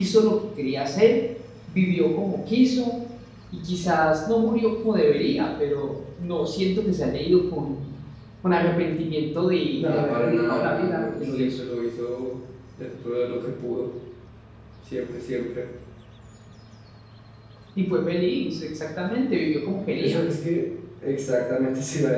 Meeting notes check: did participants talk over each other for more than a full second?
Yes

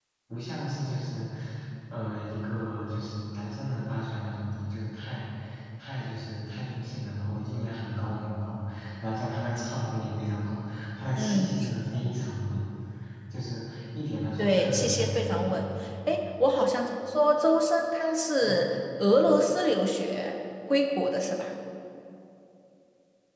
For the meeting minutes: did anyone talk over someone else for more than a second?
Yes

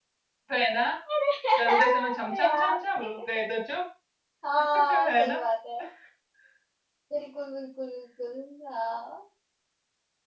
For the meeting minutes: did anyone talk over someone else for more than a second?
Yes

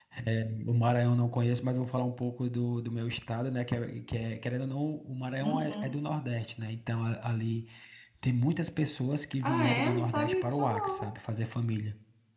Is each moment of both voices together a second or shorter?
No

